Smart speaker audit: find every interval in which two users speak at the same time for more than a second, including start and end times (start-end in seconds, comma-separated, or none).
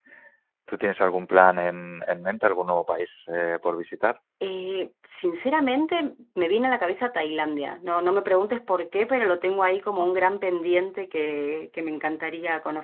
none